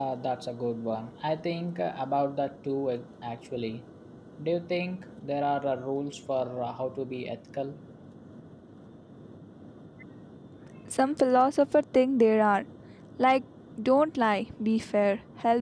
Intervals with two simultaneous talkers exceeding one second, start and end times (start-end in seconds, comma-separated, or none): none